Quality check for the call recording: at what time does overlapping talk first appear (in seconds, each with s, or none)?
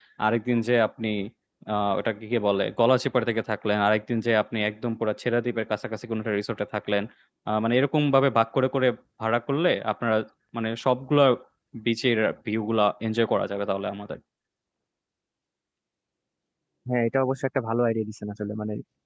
none